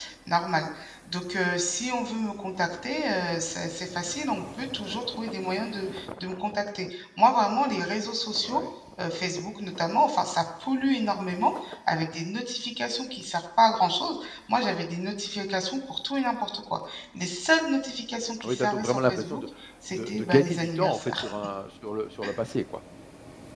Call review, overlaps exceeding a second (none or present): present